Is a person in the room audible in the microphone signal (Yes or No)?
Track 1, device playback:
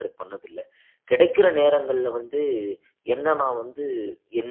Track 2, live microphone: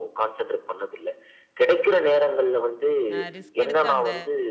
Yes